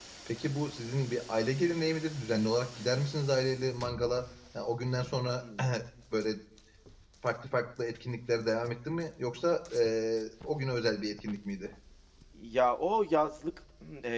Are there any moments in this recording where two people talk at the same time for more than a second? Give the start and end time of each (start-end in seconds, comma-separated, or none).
none